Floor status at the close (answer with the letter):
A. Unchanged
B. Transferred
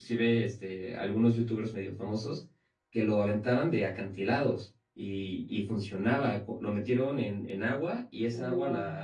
A